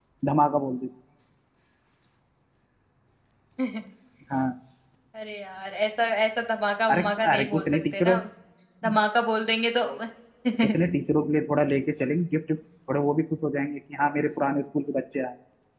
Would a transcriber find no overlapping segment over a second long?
No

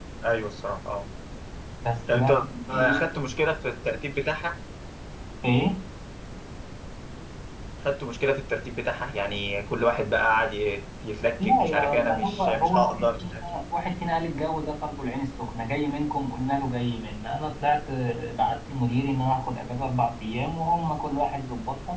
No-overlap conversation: No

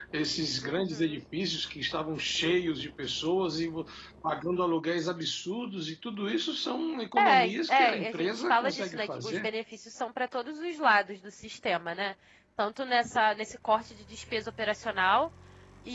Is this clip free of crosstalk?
No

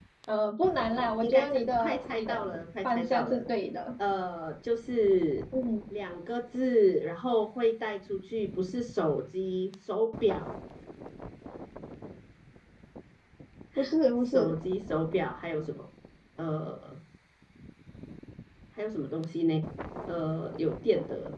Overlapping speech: Yes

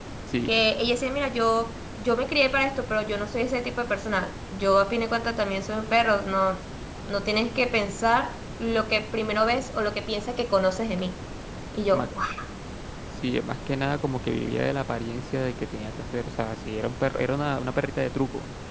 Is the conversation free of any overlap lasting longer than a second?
Yes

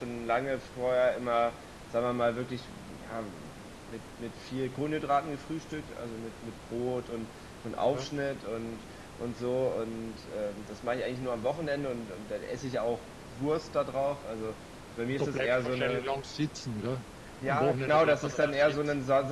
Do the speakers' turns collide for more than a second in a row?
Yes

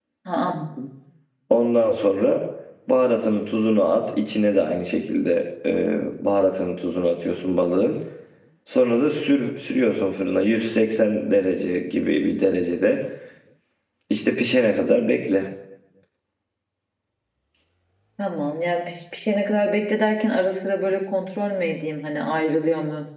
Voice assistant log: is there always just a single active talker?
Yes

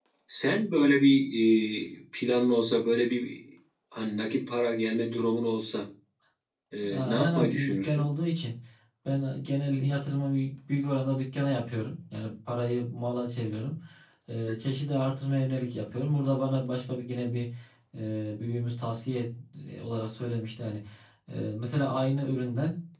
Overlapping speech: Yes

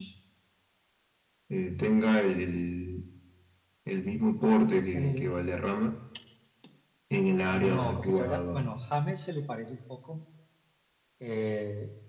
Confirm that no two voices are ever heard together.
No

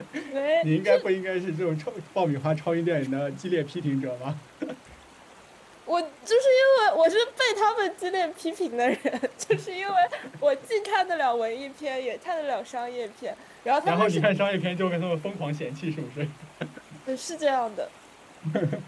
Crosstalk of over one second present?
No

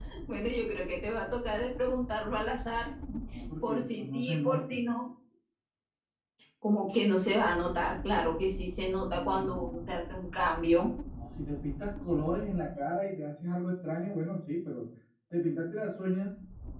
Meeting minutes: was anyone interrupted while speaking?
Yes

